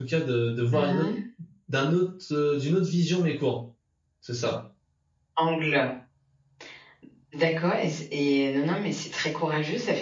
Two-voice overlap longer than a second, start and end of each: none

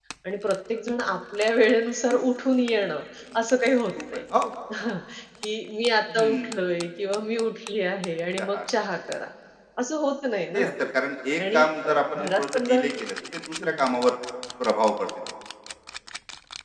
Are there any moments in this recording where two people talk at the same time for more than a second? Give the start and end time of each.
11.5-12.8

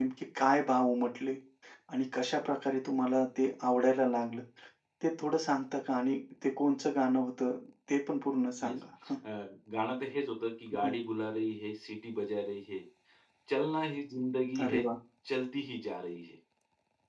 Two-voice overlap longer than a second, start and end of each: none

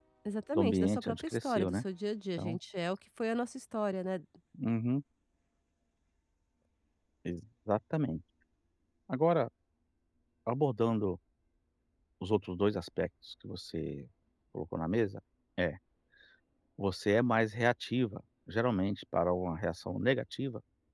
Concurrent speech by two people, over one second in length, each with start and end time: 0.6-1.8

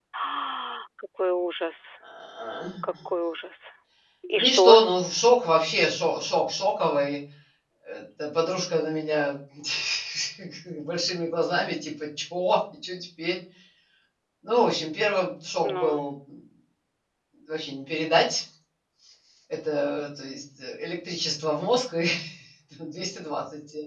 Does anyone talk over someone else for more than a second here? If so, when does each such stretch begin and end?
none

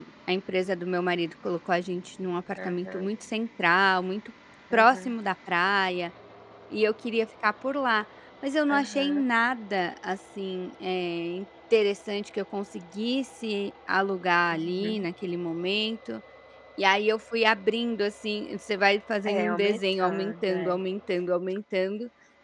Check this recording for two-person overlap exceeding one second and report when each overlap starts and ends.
19.2-20.8

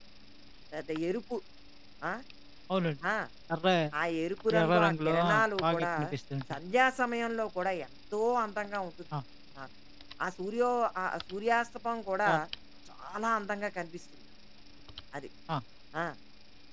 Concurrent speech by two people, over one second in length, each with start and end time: 4.6-5.9

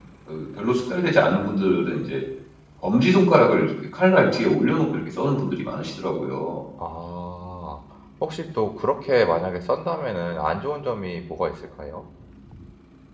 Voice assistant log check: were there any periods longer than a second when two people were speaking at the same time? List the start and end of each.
none

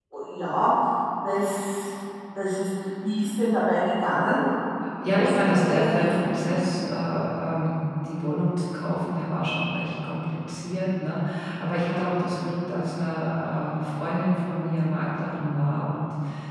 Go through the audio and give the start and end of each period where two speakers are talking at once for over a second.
5.1-6.4

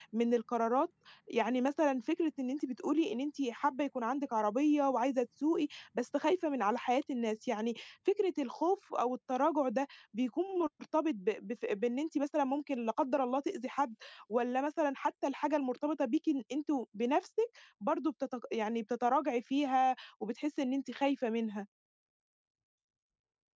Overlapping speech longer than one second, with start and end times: none

